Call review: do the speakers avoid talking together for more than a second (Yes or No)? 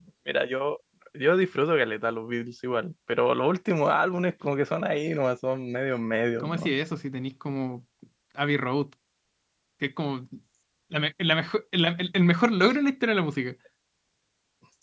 Yes